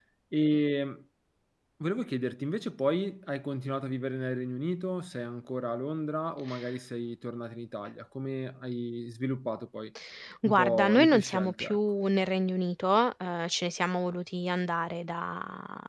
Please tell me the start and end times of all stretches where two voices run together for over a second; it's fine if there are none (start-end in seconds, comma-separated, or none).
10.4-11.8